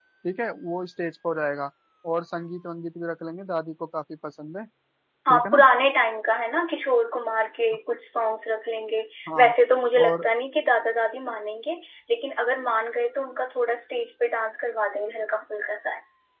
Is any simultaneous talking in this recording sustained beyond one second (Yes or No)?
No